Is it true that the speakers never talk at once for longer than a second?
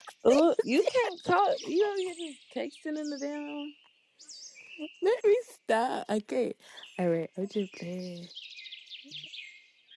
Yes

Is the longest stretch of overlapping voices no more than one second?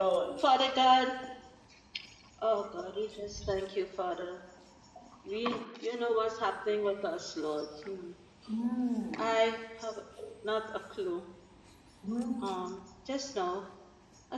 Yes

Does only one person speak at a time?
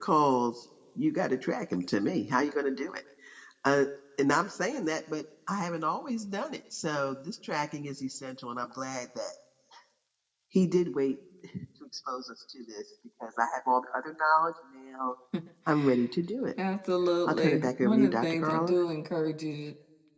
No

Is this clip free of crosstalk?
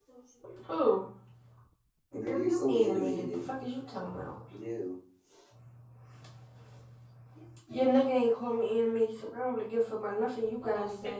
No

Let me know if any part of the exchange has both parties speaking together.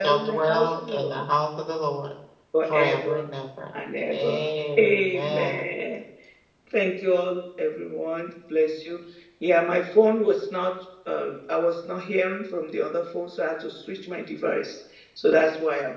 Yes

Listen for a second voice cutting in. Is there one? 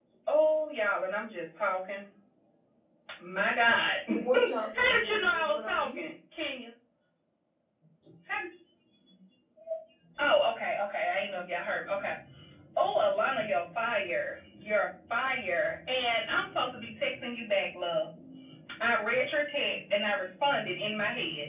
Yes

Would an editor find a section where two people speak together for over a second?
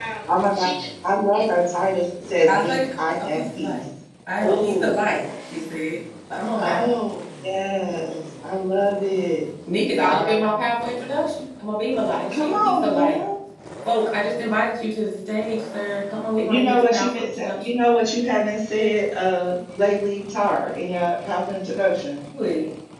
Yes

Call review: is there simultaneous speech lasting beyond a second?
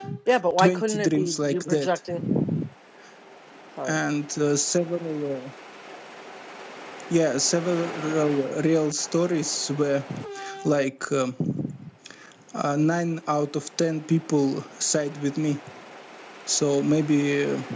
Yes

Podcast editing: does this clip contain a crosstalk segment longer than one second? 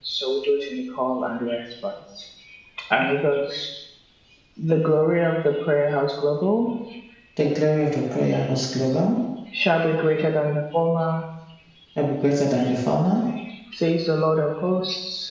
No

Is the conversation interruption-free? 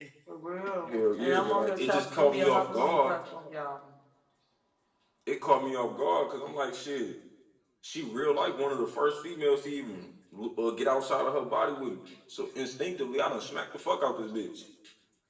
No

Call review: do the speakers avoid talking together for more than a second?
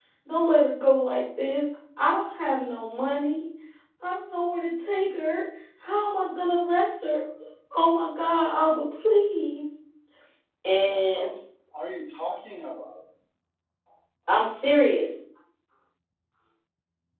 Yes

